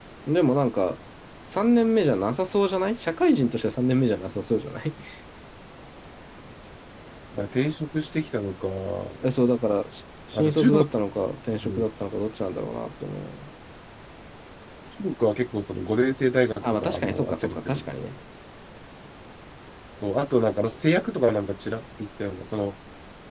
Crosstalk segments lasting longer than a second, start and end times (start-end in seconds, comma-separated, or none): 16.6-18.0